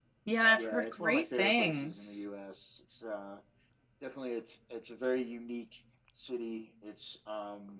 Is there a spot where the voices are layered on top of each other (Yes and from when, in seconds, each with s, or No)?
Yes, from 0.5 s